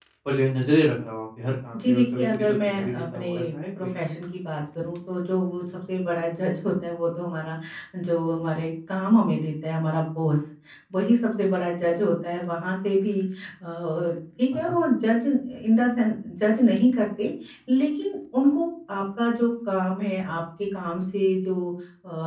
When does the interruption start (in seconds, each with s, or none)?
1.7 s